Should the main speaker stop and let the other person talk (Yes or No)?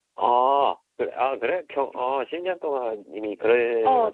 Yes